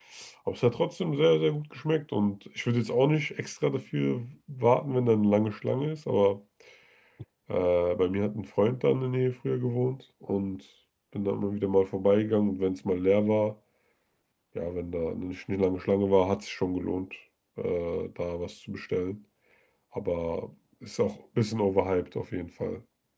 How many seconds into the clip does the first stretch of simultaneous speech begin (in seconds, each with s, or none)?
none